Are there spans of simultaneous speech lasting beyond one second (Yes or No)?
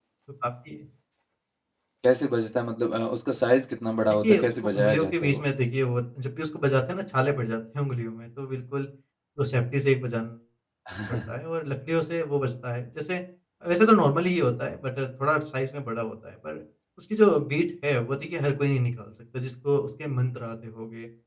Yes